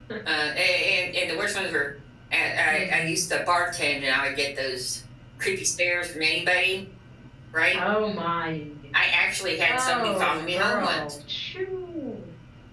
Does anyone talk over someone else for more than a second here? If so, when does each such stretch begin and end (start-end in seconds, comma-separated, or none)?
9.6-11.0